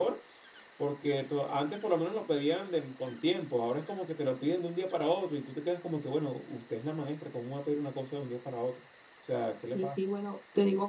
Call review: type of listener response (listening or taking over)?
taking over